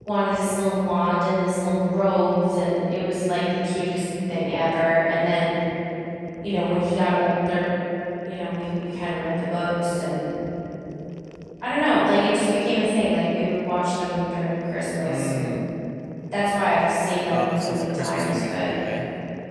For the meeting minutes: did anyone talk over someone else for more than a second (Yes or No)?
Yes